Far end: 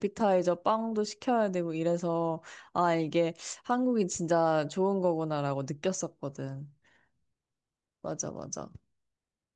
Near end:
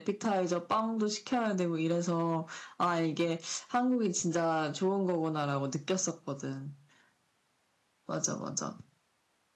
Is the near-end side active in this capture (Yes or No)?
No